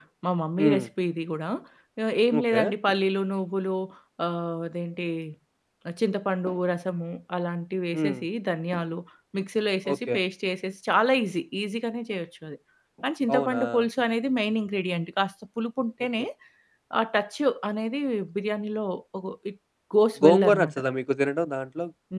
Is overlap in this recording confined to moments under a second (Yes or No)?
Yes